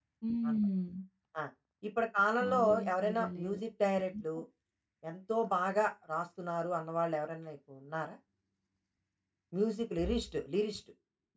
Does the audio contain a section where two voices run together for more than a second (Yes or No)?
Yes